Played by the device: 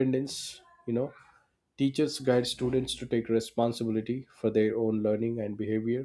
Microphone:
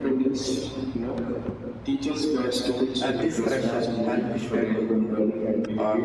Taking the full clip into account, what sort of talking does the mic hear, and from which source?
both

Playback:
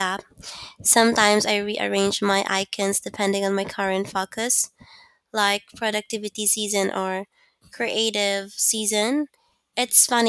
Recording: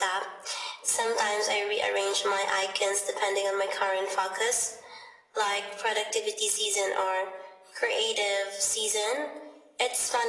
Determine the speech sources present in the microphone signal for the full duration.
echo only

